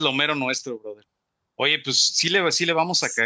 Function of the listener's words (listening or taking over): listening